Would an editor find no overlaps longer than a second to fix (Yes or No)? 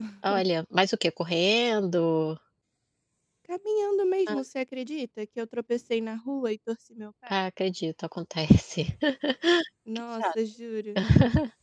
Yes